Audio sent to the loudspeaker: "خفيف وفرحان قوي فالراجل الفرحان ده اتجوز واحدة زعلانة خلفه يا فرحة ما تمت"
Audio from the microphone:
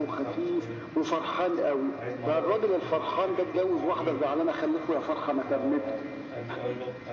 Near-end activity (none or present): present